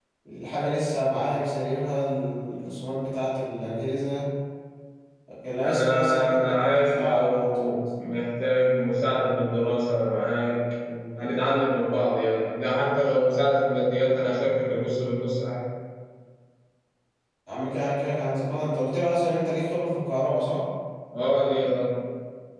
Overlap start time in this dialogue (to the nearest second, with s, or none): 6 s